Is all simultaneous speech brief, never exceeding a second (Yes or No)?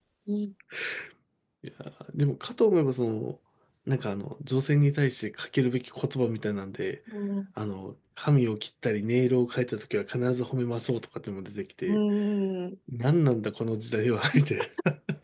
Yes